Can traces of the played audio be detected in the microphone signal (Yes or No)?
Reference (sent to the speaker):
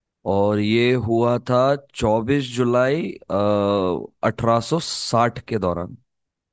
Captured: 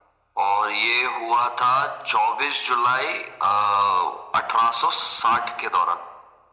Yes